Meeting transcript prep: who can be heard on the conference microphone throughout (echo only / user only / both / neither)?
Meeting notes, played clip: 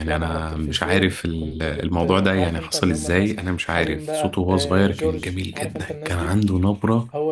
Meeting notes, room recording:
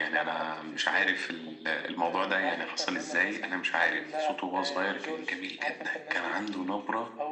echo only